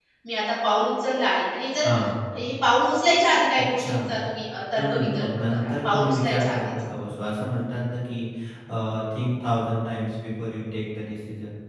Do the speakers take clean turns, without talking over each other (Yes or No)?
No